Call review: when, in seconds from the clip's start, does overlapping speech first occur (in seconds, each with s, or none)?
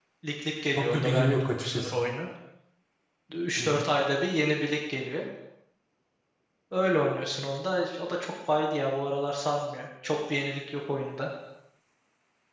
0.8 s